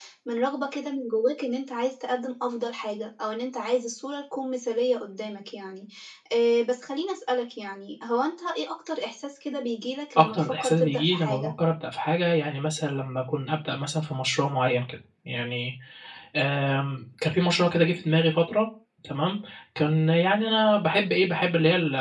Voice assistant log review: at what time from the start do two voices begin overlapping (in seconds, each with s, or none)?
10.2 s